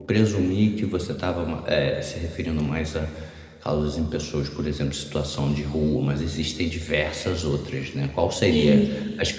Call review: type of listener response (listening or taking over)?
listening